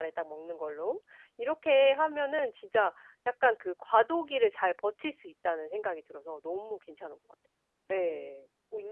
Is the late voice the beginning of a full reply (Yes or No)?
Yes